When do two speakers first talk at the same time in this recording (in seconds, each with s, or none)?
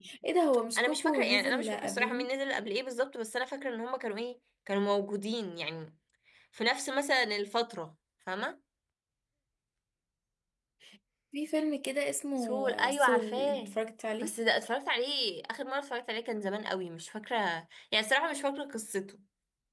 0.8 s